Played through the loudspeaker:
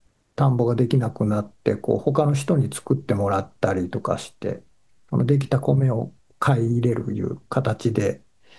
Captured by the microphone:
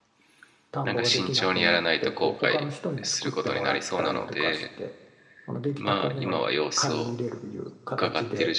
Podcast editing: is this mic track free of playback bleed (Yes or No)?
No